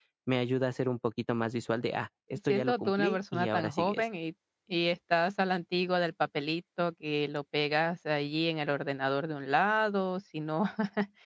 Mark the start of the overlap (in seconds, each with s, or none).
2.5 s